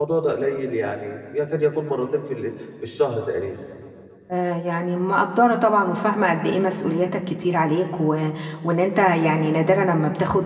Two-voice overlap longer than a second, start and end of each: none

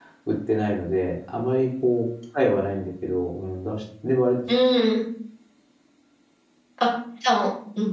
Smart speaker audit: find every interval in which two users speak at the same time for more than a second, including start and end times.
none

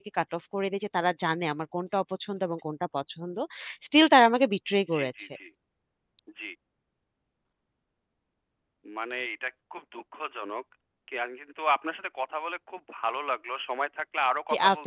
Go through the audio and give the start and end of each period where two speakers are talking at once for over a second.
none

